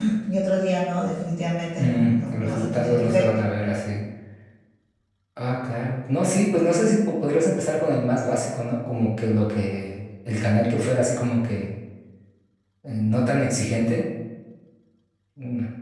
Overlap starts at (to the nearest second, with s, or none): 2 s